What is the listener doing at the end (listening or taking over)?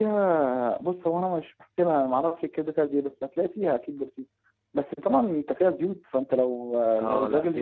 taking over